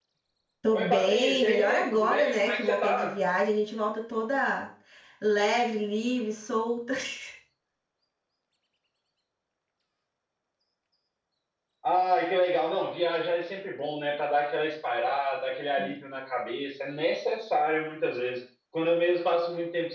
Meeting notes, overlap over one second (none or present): present